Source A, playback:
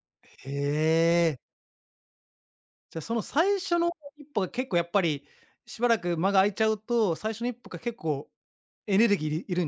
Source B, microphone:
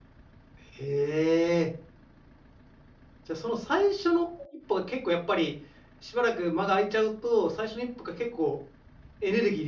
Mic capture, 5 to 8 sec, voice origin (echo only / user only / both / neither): echo only